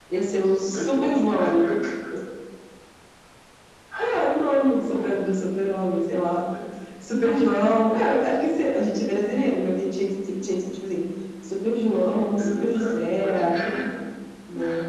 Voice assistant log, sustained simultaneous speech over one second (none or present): present